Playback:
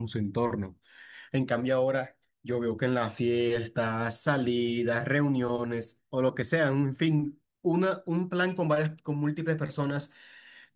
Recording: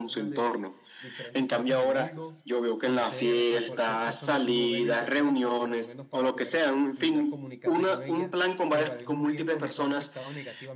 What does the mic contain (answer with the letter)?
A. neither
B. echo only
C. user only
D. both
D